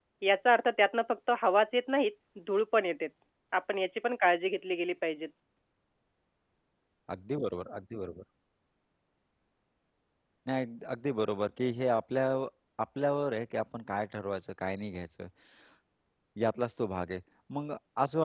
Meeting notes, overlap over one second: none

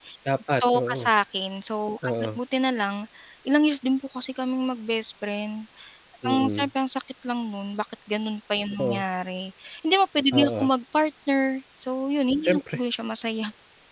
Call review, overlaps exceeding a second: none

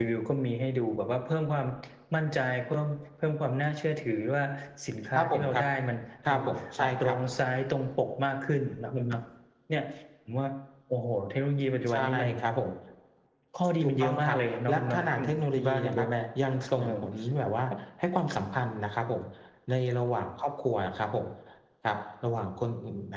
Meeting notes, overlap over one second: present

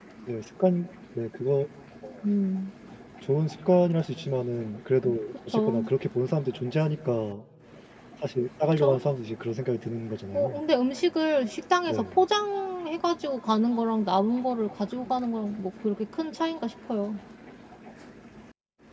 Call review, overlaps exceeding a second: none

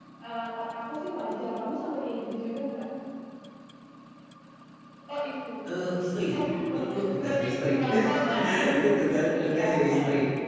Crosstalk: present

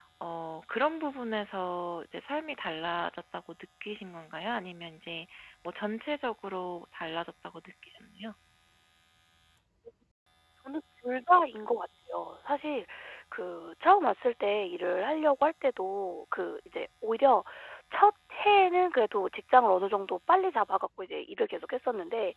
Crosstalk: none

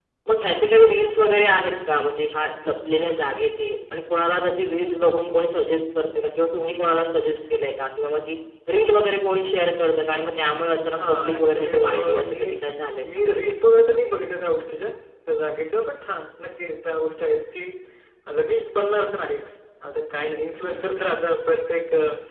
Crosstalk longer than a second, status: present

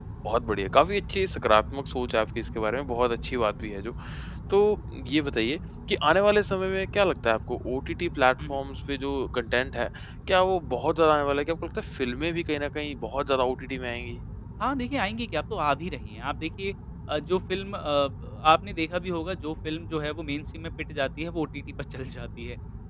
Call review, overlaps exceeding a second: none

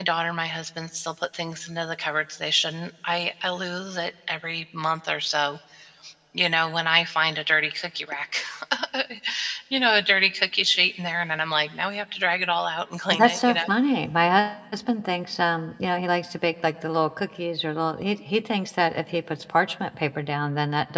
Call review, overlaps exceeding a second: none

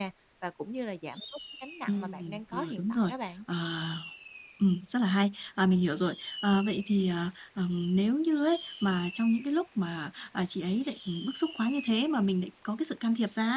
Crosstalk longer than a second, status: present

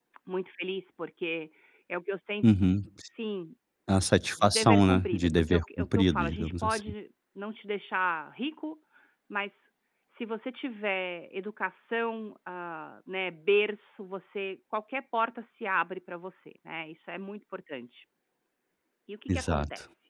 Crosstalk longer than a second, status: present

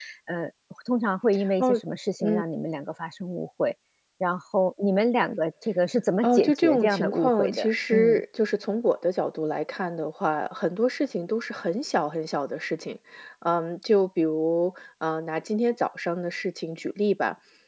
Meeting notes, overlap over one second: present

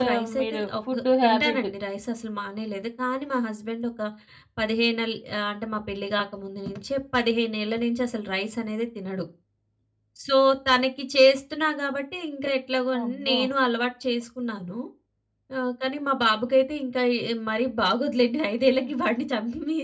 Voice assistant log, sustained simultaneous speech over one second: present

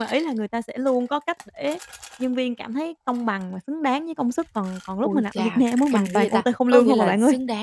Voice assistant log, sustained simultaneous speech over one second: present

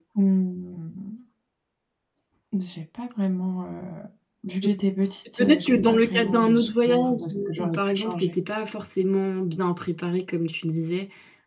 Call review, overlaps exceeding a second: present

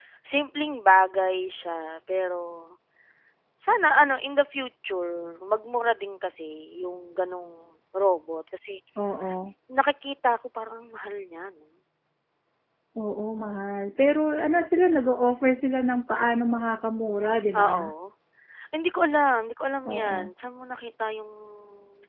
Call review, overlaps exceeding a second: none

